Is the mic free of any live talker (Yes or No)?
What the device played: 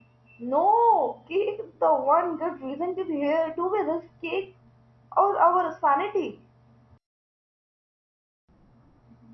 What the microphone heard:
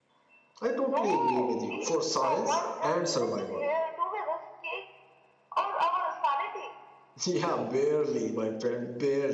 No